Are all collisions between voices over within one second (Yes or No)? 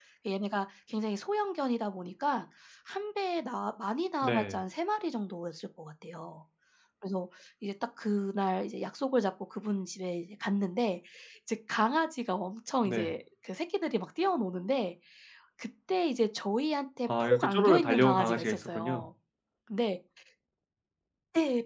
No